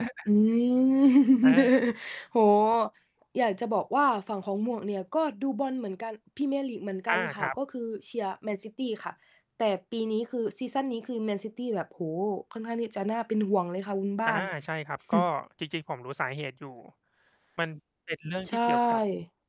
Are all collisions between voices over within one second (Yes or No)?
Yes